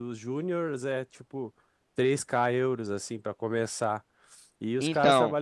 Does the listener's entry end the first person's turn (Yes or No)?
No